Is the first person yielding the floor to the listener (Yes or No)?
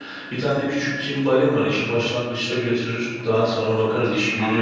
Yes